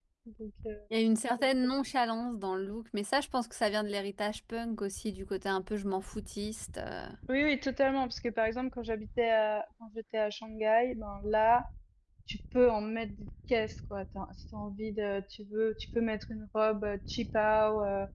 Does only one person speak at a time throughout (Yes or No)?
Yes